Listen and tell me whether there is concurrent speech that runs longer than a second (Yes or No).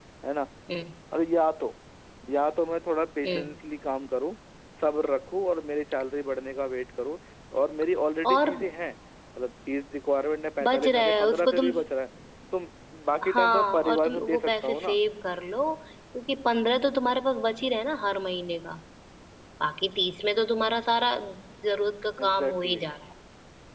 Yes